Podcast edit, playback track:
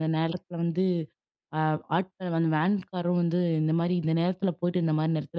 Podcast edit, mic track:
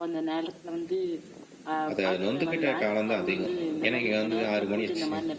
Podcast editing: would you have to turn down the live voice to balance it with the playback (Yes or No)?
Yes